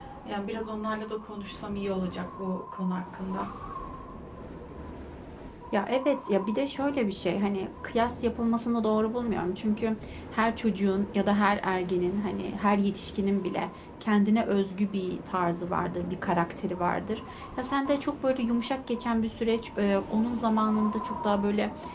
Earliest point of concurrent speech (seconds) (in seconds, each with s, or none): none